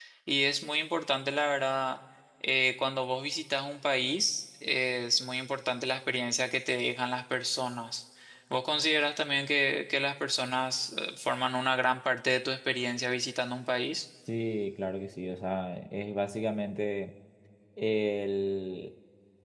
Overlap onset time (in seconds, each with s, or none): none